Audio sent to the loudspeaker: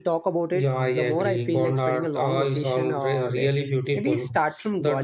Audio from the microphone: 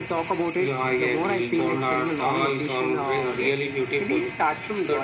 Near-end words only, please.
none

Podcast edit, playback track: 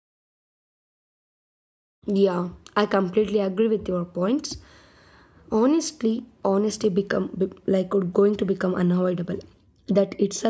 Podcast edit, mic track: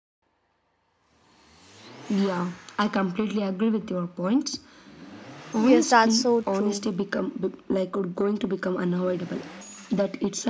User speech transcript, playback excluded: Yes, that's so true.

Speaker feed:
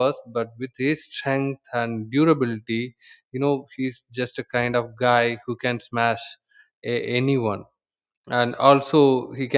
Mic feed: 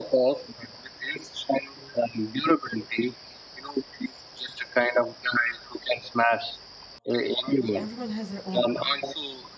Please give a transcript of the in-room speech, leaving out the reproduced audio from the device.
because everyone has their own part

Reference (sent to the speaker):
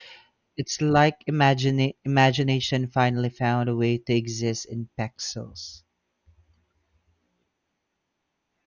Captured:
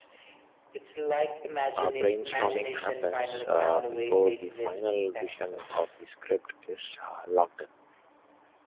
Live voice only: uh, brainstorming happens uh, before the final vision of the script is uh, locked in.

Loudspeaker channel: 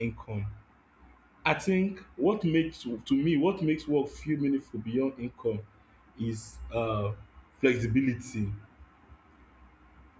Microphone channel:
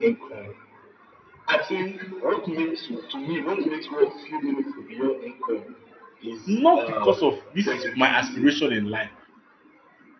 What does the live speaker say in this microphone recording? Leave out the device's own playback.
not because of this is my aspiration in life,

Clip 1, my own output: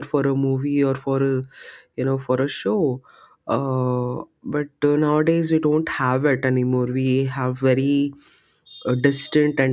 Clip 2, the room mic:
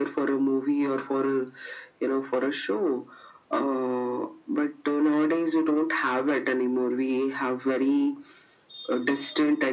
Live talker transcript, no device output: none

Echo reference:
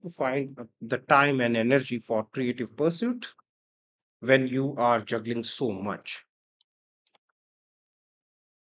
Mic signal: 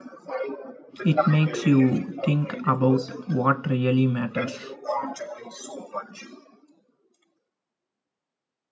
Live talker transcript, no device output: It makes you think about what really matters.

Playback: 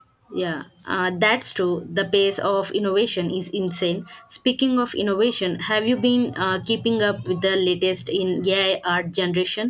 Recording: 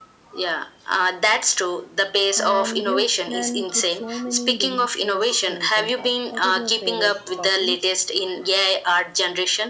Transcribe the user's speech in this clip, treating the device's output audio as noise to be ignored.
And you can put so many delicious things on top. What are your favorite toppings?

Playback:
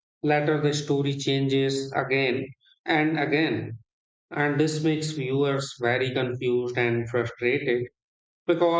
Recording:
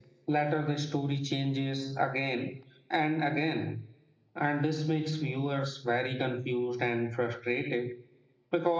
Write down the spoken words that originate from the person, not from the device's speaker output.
none

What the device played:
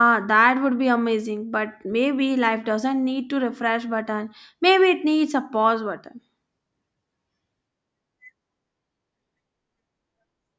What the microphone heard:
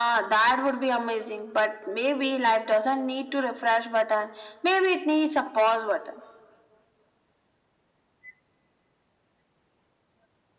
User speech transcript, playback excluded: none

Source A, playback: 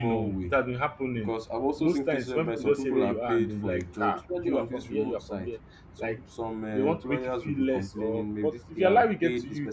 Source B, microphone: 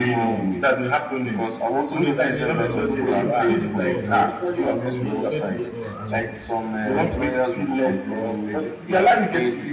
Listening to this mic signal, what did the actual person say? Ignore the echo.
Honestly, um, you've said it all. Like you've said it all, and like

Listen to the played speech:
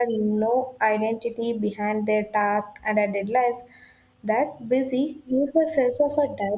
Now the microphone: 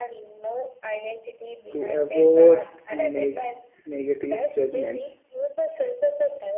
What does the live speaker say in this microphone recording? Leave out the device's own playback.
To avoid neg- negative judgment,

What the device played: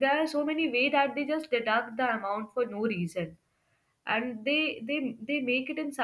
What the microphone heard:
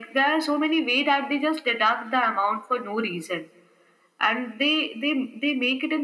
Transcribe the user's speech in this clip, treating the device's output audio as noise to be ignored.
none

